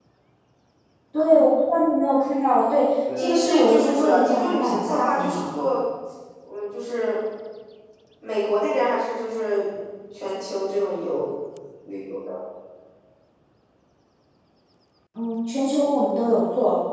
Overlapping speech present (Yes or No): Yes